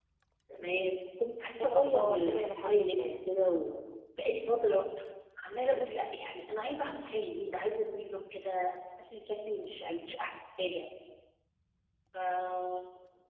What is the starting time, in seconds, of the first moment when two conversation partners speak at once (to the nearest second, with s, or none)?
2 s